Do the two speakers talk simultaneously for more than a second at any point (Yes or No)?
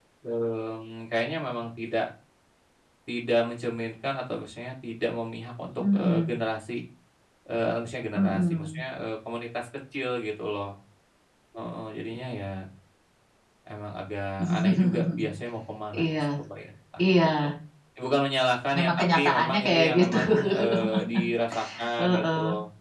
Yes